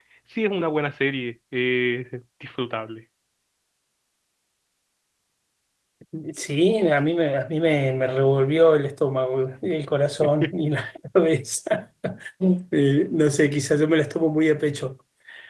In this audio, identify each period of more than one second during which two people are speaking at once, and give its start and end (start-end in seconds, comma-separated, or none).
none